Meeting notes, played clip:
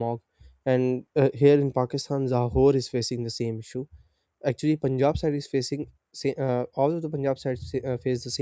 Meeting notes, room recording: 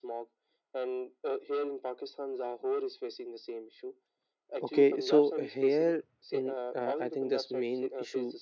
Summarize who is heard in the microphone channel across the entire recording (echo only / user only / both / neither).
both